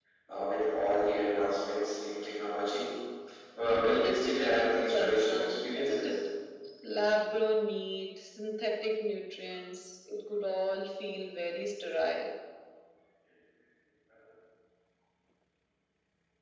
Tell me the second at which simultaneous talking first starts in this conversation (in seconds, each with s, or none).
4.0 s